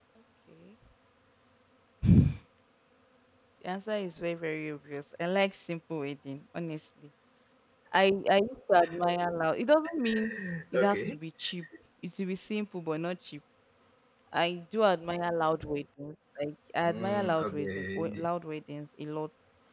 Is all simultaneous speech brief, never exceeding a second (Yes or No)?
No